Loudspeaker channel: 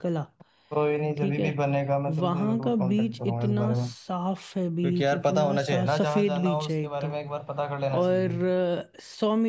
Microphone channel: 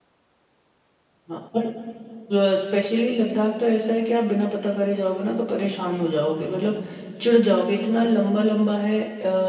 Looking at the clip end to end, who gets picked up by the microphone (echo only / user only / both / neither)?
user only